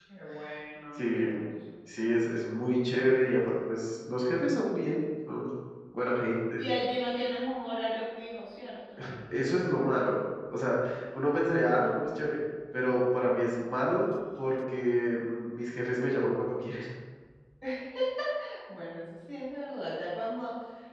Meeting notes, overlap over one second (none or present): none